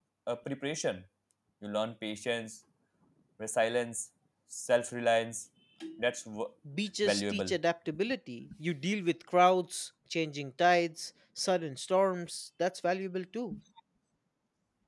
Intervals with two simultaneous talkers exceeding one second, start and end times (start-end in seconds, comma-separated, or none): none